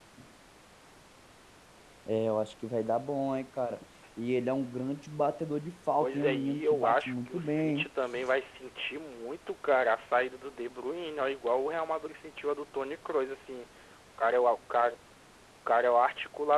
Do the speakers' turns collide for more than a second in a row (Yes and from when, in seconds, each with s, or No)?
Yes, from 6.0 s